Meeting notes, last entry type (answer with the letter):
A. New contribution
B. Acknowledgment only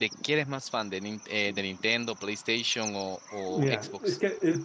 A